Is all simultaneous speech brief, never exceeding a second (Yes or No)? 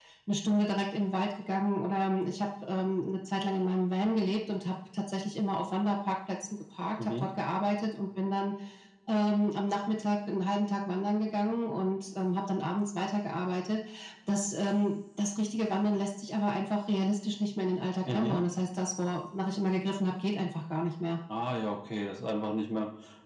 Yes